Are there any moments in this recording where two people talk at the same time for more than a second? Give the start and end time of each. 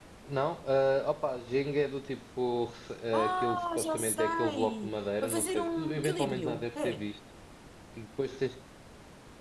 3.1-7.1

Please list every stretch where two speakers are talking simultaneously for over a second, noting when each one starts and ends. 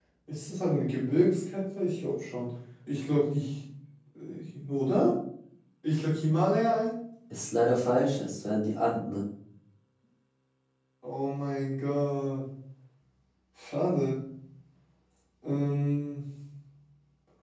none

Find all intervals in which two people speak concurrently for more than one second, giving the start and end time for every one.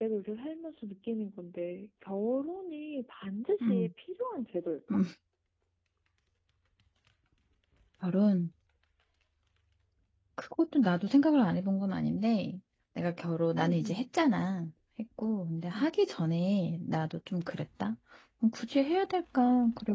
none

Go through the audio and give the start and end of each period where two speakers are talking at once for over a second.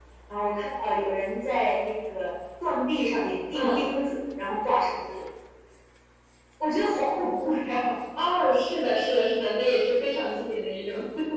none

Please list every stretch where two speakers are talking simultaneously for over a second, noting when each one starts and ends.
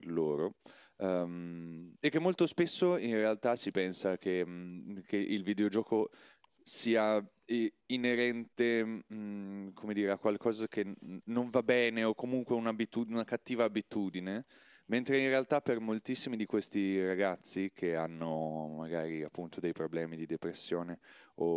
none

